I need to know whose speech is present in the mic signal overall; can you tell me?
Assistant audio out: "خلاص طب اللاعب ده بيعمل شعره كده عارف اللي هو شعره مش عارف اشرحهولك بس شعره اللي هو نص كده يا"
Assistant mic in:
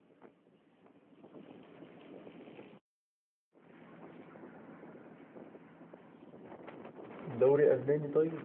user only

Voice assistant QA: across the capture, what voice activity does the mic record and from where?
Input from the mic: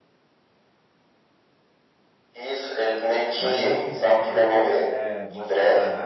both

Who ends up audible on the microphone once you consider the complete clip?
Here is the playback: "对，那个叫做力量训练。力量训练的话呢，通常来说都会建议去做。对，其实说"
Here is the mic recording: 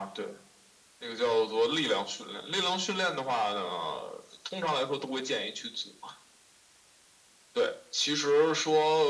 echo only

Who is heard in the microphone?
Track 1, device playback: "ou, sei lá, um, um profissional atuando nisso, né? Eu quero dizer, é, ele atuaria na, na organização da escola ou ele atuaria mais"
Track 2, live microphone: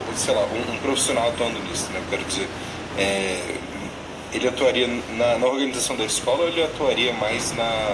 echo only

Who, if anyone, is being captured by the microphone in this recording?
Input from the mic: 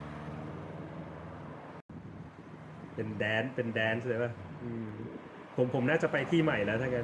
user only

